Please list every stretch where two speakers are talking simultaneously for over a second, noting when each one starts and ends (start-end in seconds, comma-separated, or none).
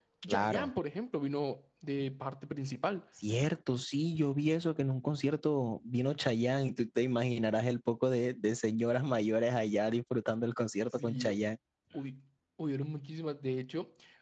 none